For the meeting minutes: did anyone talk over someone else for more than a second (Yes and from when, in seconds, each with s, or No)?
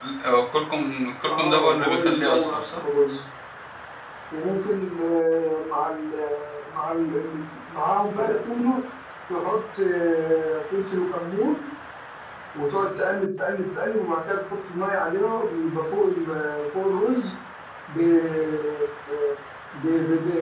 Yes, from 1.3 s